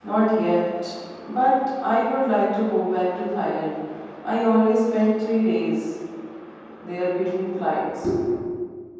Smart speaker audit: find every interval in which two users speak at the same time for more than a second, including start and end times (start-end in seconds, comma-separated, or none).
none